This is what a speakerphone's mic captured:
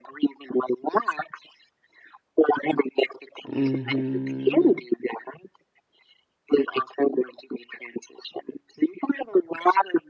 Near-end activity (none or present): present